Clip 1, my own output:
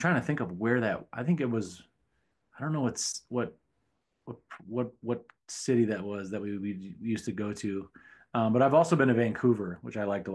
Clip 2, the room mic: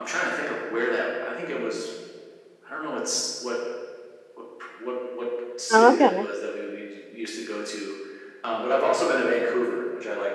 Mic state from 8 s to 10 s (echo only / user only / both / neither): echo only